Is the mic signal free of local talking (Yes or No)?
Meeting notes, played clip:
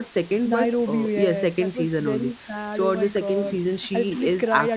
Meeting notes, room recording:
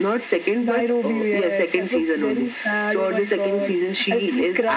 Yes